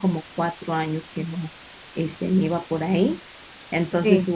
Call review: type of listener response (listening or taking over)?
listening